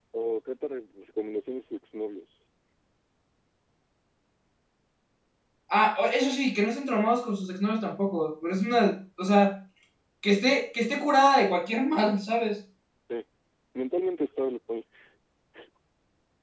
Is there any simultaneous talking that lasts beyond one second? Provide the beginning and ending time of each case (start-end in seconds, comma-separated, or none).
none